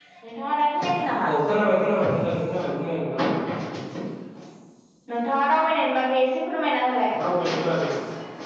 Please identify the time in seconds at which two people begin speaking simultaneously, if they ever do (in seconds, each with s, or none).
none